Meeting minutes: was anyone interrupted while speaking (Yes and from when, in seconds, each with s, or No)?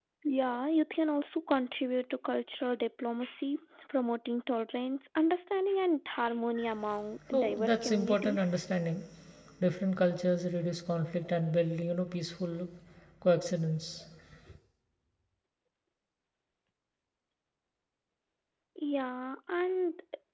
Yes, from 7.3 s